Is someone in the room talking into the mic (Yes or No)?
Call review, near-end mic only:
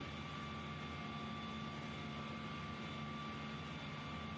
No